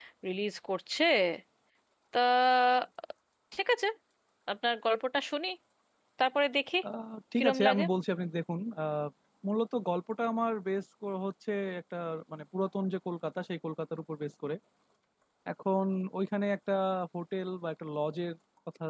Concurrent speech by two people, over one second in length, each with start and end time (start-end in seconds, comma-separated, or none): none